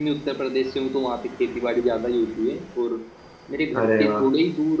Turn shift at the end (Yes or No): No